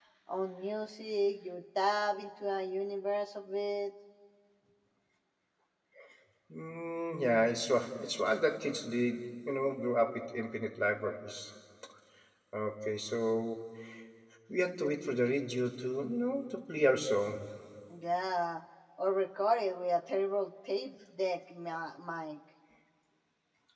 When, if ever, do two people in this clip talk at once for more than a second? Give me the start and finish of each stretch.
none

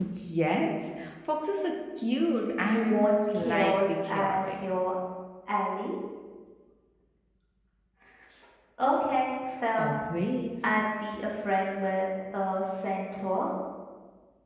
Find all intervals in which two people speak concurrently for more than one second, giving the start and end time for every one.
2.6-4.5

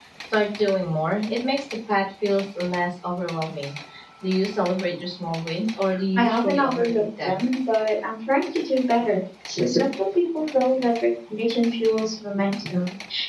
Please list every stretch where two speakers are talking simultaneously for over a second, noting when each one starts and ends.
6.2-7.4

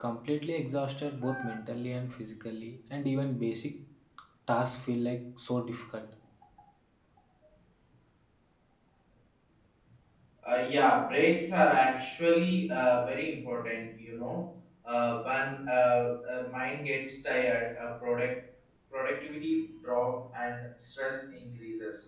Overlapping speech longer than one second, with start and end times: none

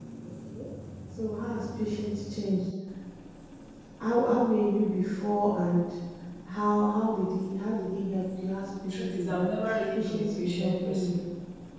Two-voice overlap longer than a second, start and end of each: 8.9-11.2

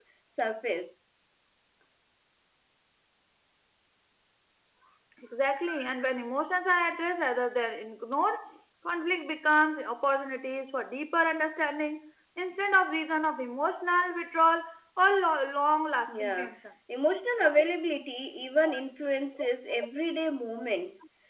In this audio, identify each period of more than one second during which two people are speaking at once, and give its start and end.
none

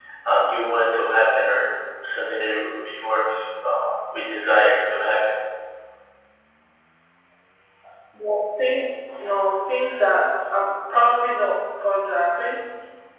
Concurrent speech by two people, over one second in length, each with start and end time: none

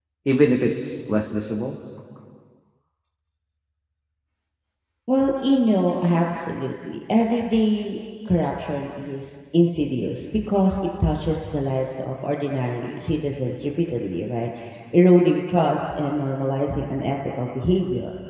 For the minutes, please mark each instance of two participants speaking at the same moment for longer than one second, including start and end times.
none

